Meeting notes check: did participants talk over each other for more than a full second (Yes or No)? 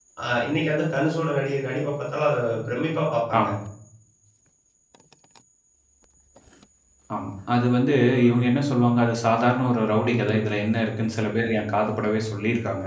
No